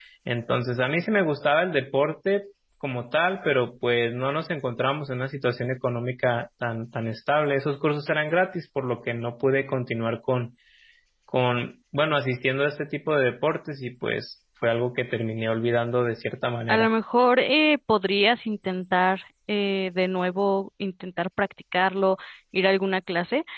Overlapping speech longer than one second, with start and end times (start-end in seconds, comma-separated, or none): none